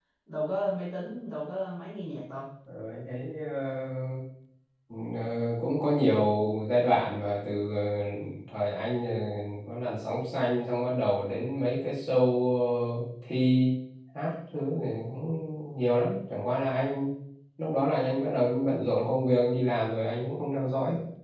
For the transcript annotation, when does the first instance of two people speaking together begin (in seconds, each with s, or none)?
none